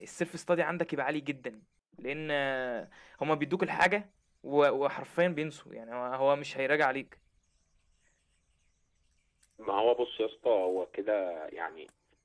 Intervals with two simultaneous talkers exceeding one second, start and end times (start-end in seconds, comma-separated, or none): none